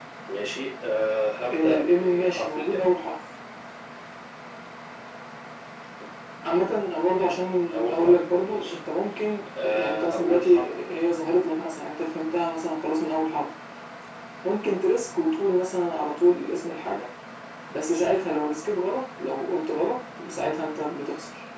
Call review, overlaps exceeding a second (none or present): present